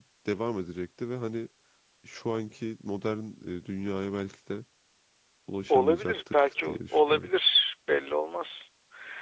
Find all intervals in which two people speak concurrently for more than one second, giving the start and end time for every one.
5.7-7.3

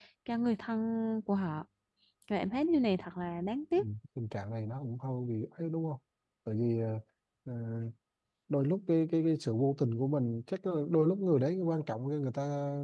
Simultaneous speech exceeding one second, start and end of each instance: none

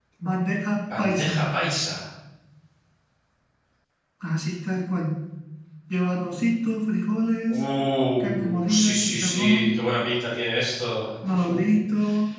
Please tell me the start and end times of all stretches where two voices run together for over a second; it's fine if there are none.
8.2-9.7

